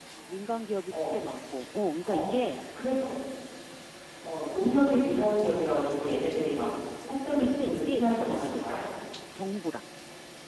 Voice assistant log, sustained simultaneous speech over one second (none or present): present